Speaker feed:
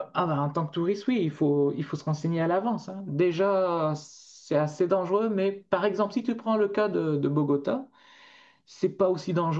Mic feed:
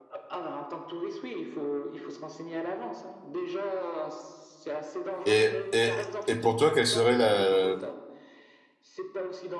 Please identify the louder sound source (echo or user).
user